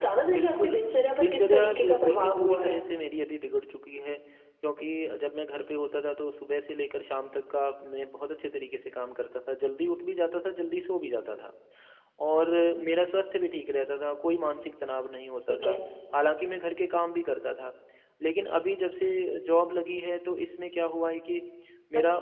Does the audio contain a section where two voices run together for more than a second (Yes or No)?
Yes